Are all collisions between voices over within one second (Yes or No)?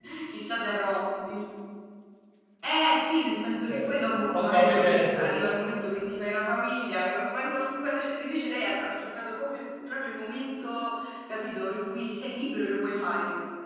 No